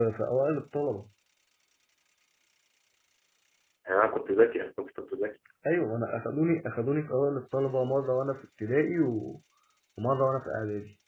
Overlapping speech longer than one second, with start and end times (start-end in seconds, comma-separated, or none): none